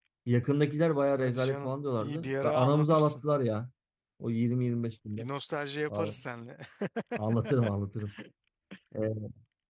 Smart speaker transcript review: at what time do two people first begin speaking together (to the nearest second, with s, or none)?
1 s